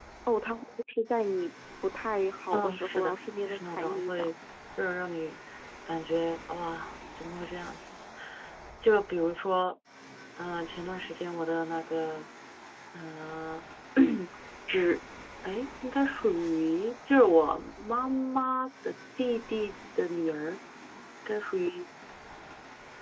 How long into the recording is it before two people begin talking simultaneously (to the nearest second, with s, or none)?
3 s